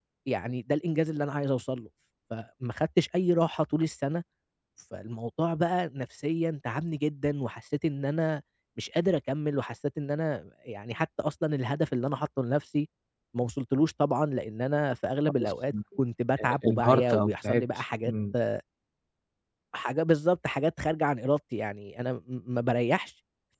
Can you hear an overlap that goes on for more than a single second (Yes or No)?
Yes